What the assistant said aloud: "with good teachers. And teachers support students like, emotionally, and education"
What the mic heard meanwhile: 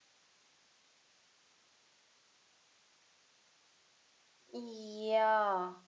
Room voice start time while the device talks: 4.5 s

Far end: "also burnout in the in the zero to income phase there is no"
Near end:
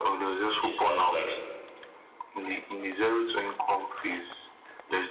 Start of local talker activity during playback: 0.6 s

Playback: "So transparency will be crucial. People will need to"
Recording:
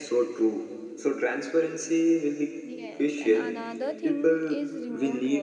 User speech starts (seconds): 2.6 s

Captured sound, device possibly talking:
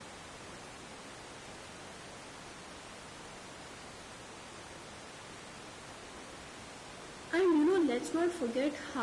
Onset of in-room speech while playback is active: 7.3 s

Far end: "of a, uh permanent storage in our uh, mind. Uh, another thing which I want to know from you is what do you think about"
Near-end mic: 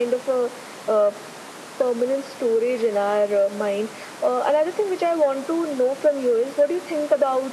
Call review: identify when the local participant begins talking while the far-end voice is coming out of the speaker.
none

